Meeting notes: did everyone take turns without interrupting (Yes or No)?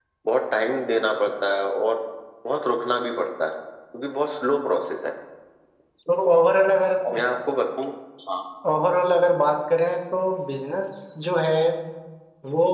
Yes